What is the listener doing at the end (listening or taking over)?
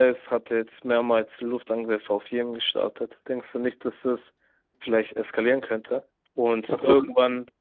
listening